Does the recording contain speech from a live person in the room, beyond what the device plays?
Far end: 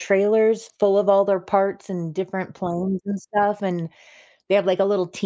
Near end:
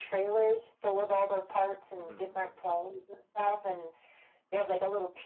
Yes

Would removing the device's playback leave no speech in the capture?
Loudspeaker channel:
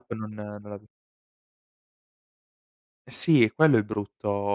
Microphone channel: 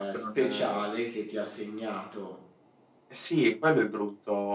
No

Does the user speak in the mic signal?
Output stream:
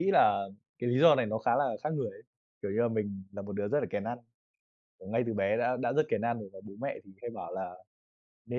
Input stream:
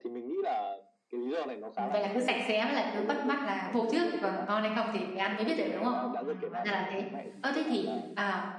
Yes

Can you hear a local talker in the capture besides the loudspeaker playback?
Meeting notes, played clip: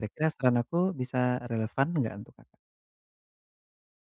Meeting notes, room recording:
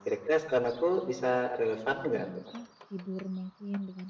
Yes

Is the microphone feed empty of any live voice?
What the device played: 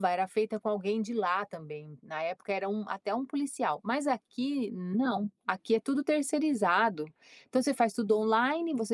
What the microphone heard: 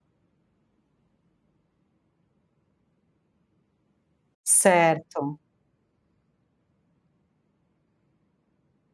No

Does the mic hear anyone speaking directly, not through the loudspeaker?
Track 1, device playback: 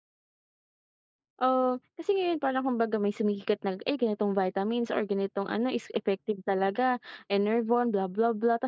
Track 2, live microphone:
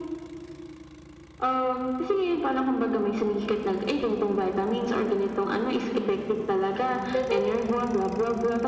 Yes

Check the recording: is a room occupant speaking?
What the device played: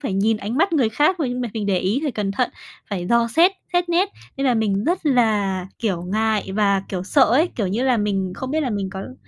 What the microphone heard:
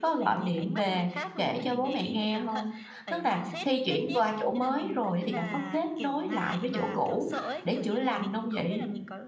Yes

